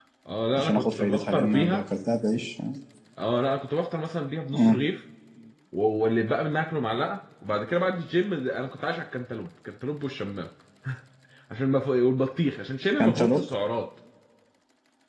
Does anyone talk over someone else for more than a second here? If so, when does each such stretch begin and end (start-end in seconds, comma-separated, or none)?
0.6-1.8